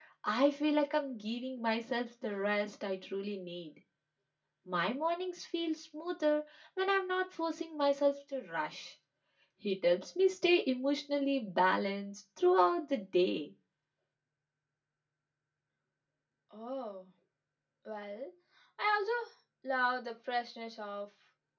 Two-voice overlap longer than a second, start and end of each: none

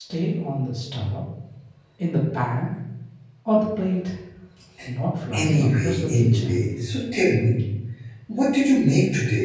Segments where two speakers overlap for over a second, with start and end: 5.3-6.7

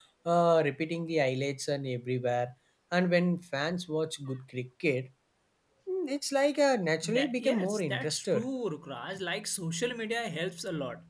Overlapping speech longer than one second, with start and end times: 7.0-8.5

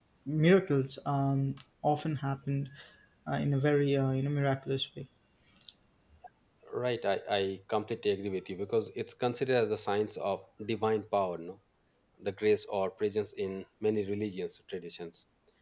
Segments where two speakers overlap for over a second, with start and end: none

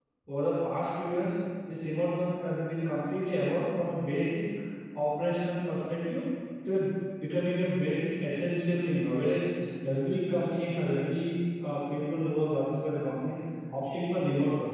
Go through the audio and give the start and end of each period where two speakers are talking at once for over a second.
none

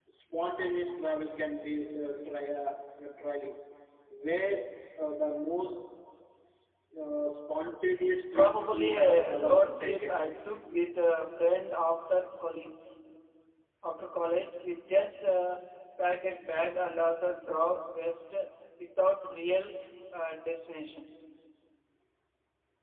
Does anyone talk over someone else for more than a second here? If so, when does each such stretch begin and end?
8.3-10.2

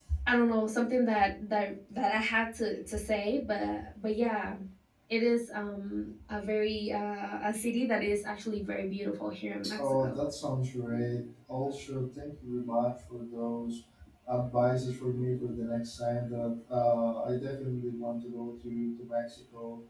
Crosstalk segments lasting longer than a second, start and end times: none

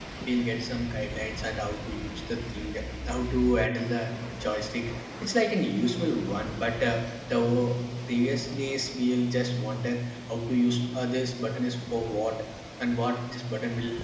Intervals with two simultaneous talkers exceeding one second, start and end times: none

